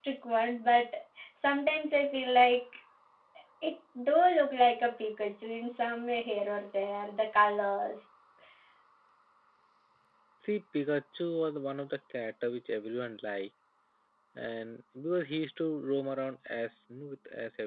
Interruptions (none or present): none